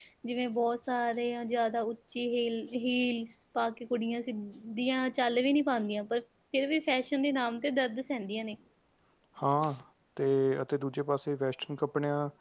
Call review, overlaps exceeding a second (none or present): none